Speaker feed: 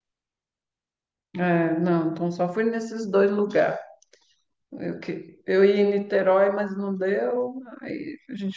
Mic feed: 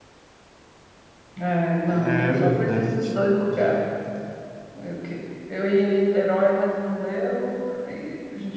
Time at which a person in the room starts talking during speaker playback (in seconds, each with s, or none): 1.8 s